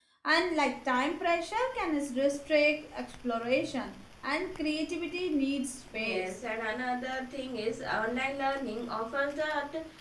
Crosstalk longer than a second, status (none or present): none